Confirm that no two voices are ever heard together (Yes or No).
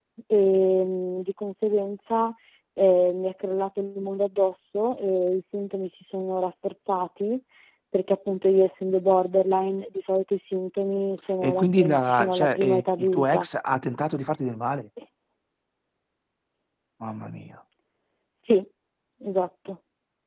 No